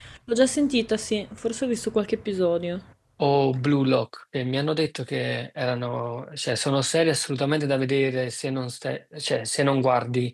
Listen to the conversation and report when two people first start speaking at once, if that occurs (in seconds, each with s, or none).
none